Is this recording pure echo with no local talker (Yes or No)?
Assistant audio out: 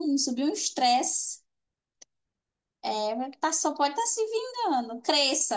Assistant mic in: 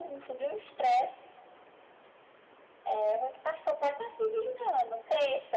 Yes